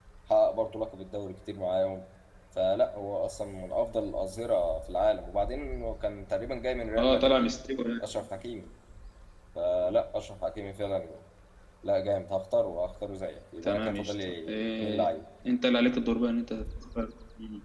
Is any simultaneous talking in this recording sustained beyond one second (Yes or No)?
Yes